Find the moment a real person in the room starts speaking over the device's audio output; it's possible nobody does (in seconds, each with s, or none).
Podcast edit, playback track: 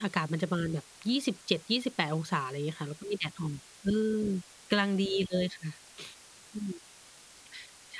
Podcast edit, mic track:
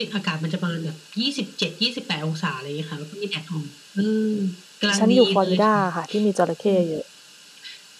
4.9 s